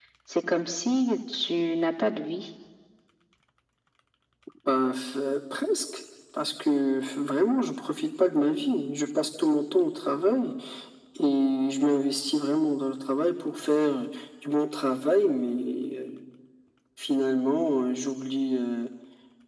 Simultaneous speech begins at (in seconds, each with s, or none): none